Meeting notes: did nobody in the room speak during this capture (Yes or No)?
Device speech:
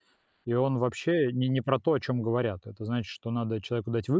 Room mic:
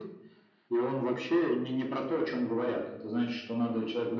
Yes